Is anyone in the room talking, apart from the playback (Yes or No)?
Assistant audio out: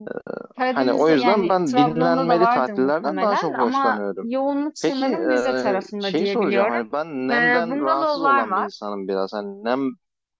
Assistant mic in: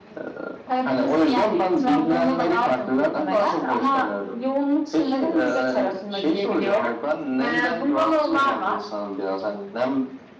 No